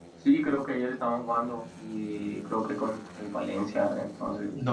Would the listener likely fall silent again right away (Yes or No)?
No